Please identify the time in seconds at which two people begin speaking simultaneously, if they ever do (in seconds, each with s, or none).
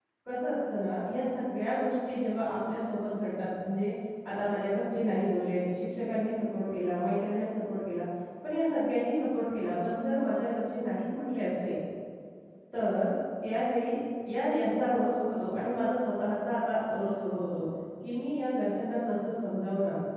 none